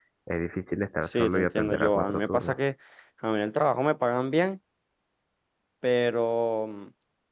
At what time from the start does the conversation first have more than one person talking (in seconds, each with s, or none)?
1.0 s